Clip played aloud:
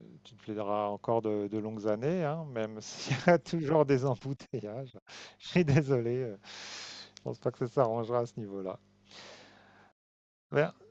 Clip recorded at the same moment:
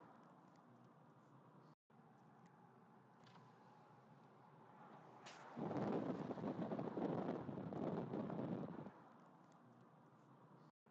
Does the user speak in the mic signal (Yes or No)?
No